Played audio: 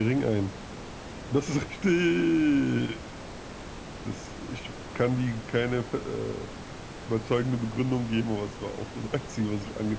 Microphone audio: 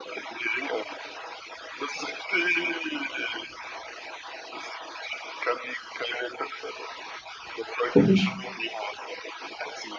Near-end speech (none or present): present